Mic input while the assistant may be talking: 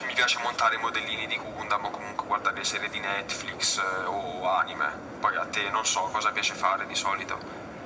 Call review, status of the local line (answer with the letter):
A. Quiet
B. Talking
A